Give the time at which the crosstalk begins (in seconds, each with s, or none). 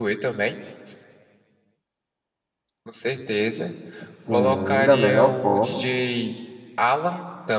4.3 s